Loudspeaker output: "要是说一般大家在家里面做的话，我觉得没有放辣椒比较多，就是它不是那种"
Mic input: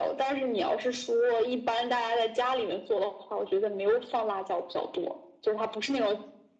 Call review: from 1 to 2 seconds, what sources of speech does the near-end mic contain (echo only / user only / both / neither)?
echo only